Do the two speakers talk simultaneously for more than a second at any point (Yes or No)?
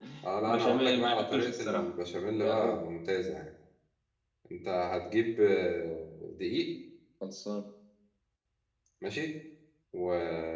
Yes